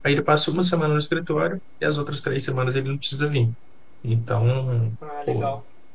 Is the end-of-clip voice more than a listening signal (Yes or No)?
No